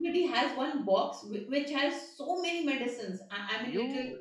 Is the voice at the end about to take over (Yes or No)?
Yes